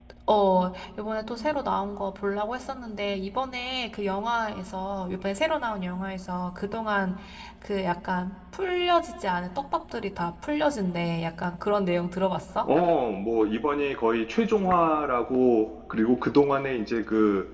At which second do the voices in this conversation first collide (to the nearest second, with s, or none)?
none